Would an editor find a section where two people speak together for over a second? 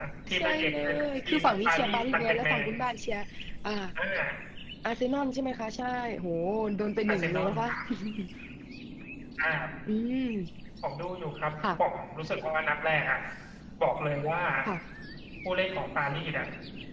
Yes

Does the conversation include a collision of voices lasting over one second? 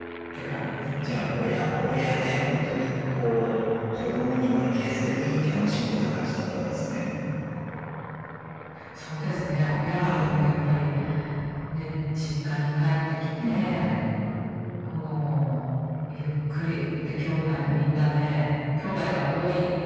No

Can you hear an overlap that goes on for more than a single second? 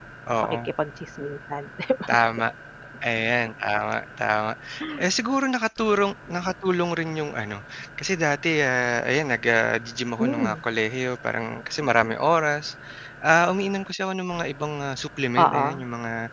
No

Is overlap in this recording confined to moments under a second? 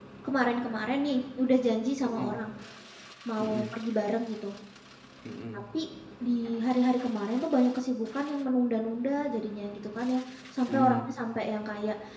Yes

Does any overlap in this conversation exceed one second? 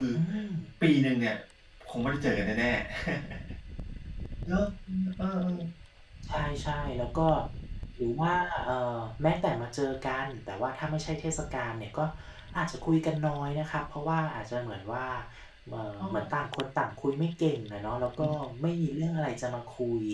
No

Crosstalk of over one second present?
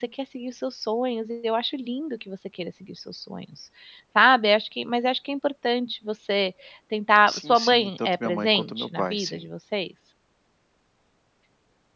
Yes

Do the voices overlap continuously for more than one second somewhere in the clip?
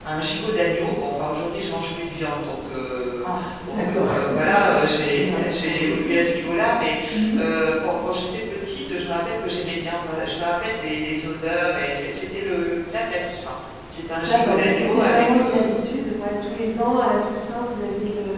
Yes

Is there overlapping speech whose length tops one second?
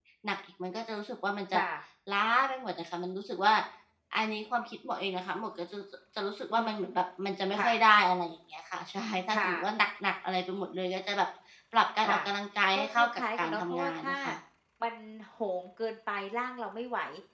Yes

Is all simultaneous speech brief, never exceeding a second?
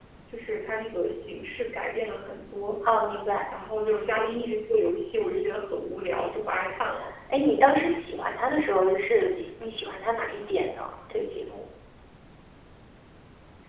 Yes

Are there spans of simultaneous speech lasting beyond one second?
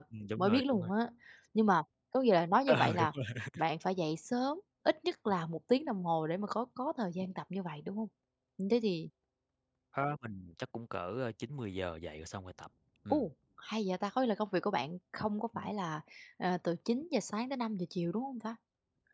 No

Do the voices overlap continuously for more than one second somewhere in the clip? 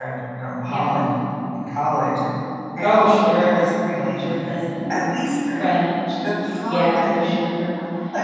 Yes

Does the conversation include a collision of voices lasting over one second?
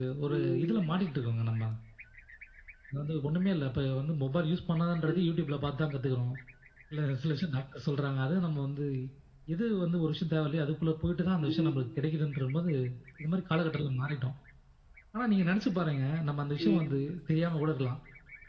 No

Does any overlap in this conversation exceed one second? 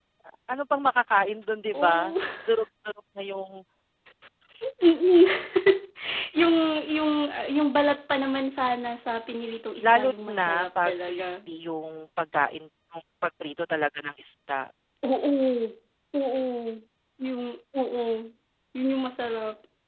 Yes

